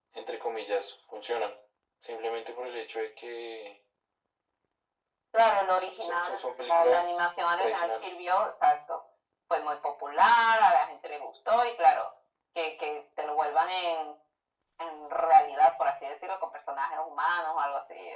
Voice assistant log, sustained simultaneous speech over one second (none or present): present